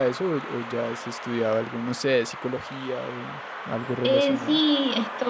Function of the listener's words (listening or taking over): taking over